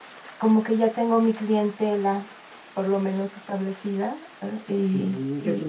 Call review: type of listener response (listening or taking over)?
taking over